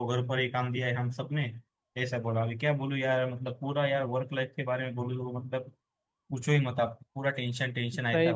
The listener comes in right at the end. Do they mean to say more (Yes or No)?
Yes